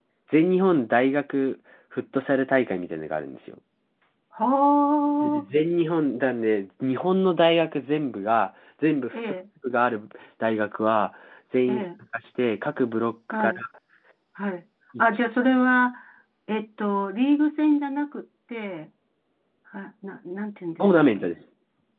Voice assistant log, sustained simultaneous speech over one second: none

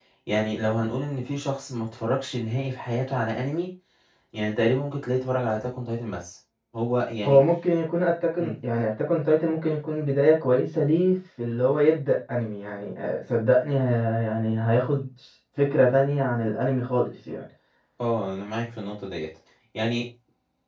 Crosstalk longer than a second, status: none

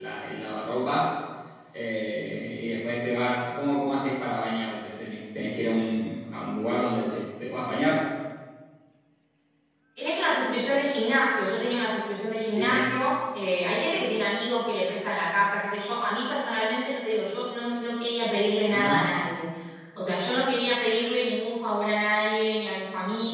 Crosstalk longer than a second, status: none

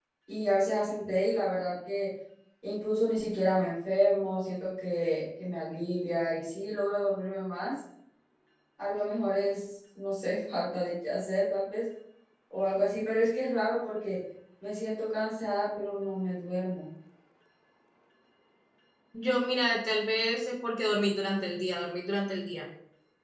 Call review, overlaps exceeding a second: none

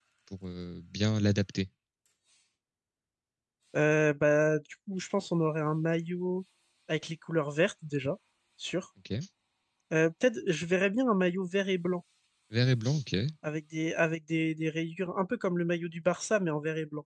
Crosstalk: none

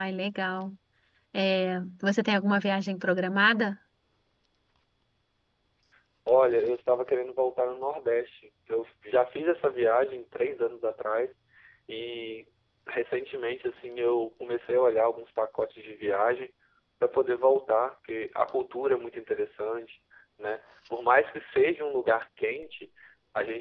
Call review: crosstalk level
none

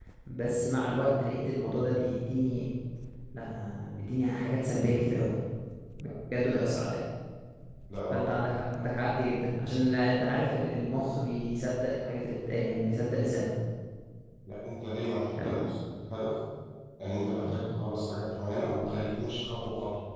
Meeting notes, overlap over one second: none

